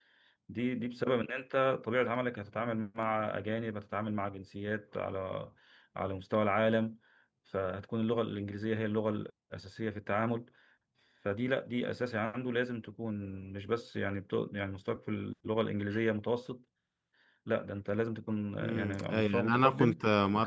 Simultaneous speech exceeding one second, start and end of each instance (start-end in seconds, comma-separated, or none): 18.6-20.0